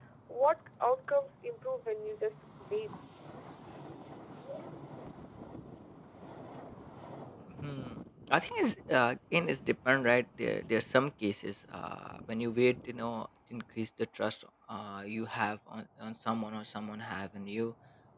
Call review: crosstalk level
none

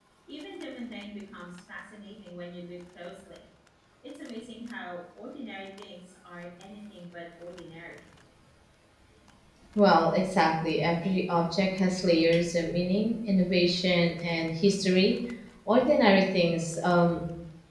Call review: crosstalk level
none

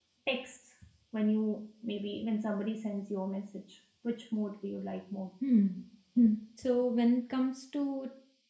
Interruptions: none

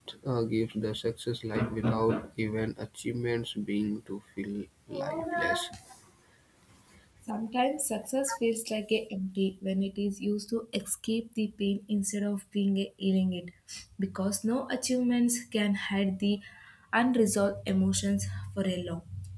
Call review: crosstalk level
none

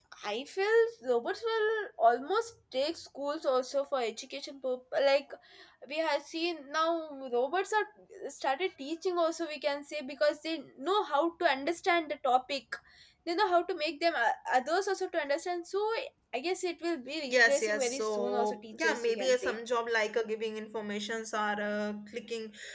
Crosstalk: present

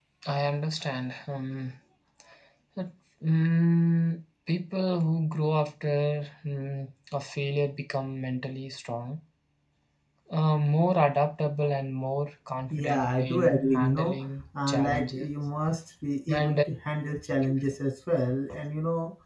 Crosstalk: present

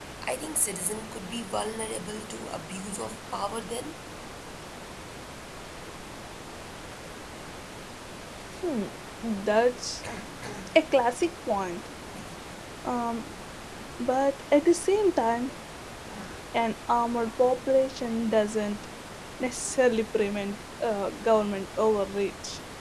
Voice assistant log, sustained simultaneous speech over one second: none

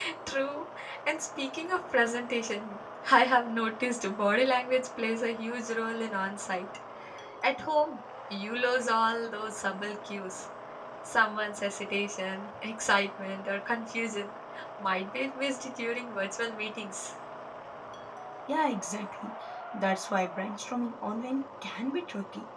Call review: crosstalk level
none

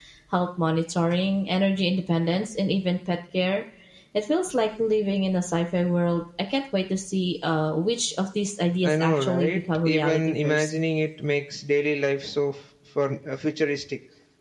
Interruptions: present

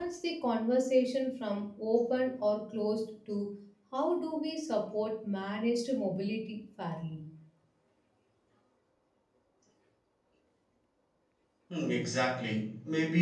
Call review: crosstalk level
none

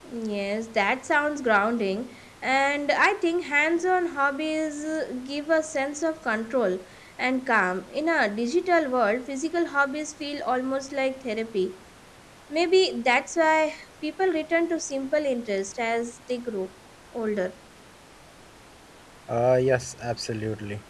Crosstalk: none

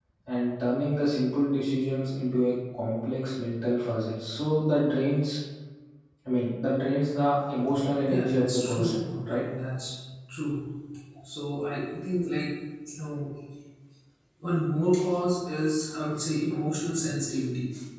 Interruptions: present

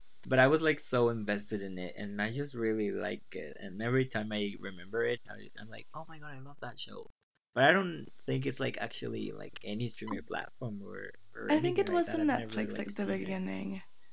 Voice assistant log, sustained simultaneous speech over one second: present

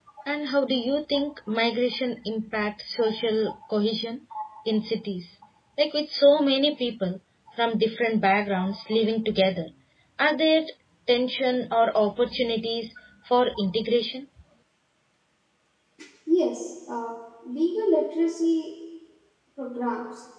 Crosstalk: none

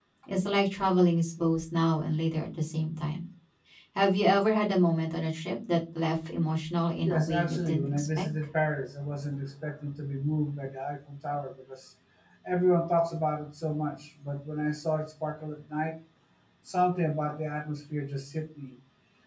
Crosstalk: present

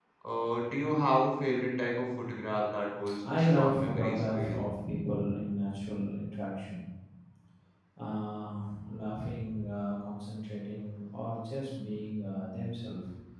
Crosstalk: present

